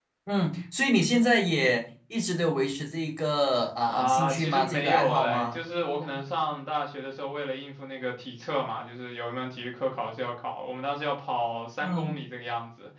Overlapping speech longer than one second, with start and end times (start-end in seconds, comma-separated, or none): 3.9-5.6